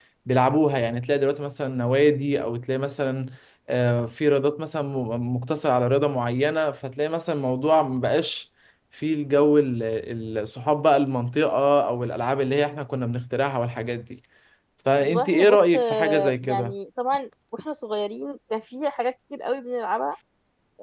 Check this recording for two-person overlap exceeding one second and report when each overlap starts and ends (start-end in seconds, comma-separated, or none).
14.9-16.7